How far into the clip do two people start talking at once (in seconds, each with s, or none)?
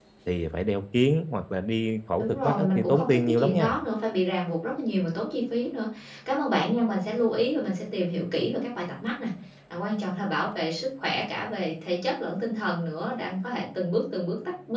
2.2 s